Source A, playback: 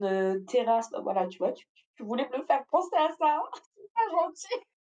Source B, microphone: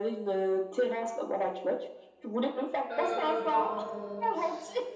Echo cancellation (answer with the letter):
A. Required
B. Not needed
A